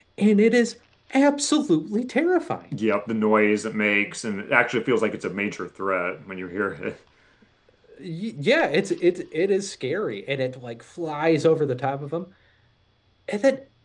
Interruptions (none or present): none